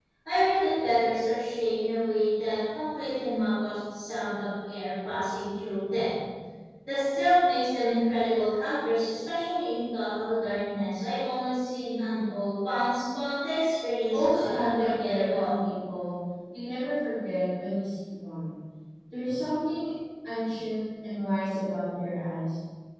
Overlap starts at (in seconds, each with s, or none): 14.1 s